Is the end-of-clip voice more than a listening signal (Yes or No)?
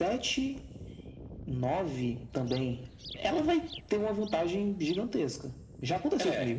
Yes